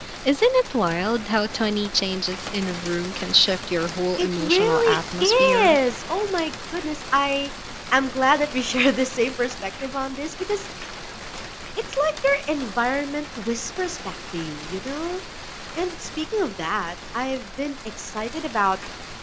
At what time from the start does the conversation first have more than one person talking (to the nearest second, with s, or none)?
4 s